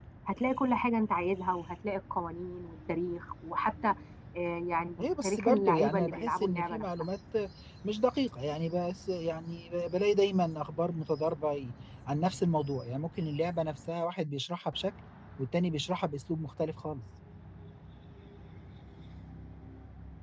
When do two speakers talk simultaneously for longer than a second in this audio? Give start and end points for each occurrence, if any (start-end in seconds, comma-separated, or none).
5.0-6.8